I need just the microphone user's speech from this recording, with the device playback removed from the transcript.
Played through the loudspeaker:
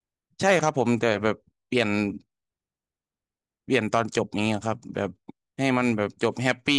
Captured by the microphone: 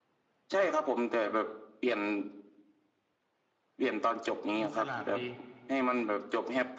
ดูฉลาดดี

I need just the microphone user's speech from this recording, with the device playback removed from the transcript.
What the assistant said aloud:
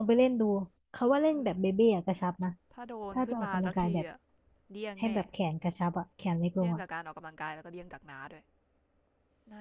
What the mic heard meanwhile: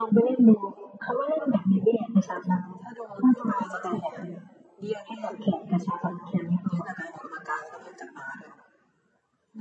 none

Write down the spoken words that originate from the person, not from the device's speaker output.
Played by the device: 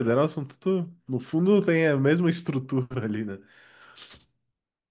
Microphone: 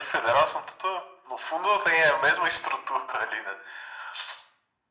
none

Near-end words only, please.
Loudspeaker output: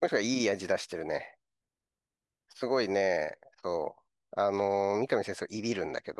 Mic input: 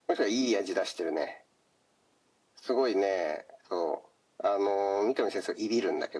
none

